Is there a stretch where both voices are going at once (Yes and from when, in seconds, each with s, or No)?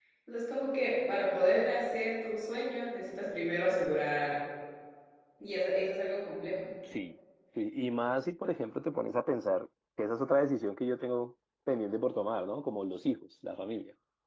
No